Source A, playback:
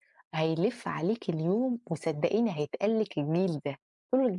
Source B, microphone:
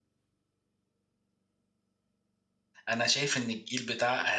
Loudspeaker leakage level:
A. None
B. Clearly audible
A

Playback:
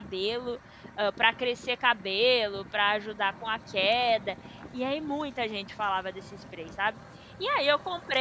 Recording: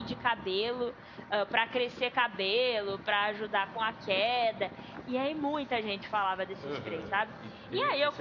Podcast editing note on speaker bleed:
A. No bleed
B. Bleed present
B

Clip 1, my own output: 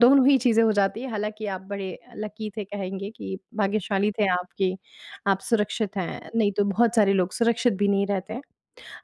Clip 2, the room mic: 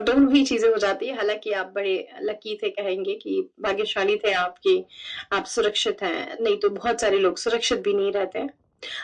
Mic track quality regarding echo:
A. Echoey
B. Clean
A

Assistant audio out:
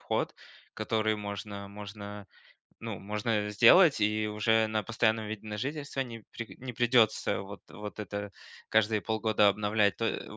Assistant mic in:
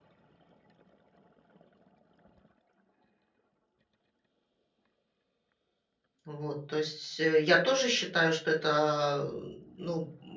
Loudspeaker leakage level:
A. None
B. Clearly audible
A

